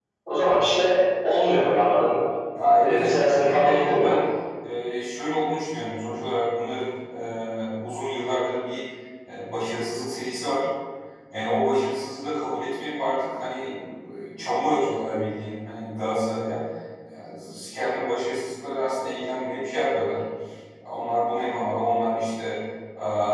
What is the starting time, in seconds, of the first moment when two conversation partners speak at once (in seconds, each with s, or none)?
2.8 s